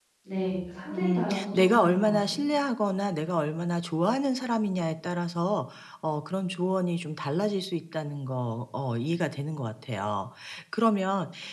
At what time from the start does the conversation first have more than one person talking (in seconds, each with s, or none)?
0.9 s